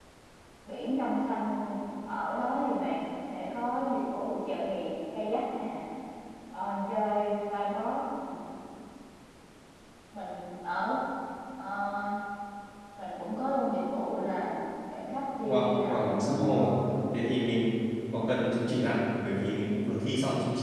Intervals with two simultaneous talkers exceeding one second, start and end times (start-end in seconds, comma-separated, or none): 15.4-16.7